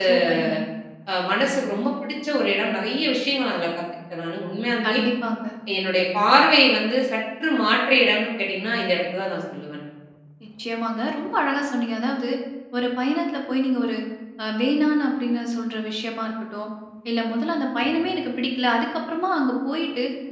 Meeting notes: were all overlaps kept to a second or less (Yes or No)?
Yes